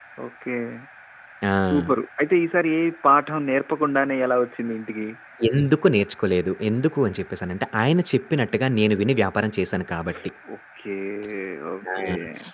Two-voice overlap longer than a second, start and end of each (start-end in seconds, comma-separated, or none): none